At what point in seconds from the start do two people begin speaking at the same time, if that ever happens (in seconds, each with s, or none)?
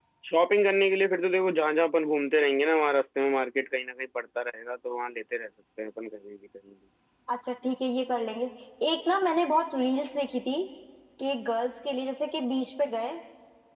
none